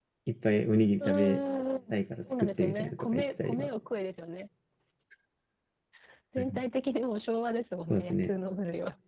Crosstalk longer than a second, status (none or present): present